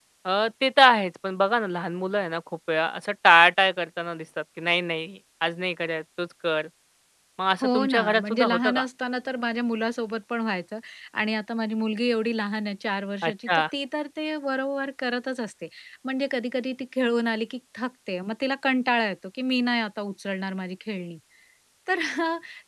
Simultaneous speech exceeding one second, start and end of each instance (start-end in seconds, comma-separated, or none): 7.6-8.8